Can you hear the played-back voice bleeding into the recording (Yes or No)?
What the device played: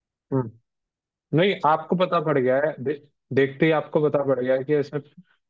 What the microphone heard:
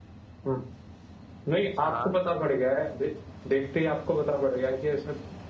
Yes